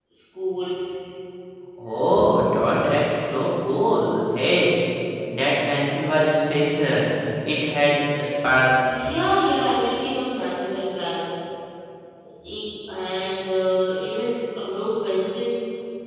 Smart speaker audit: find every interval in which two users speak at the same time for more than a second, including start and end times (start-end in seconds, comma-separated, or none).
none